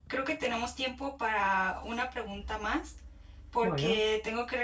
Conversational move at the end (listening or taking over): listening